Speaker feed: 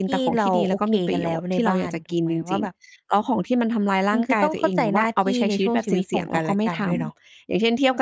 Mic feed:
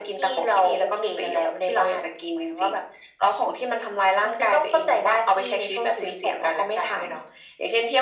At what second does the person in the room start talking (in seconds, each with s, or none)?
none